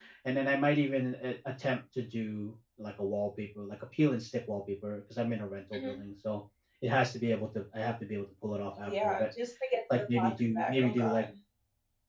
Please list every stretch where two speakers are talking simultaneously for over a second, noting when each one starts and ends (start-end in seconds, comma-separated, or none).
9.9-11.2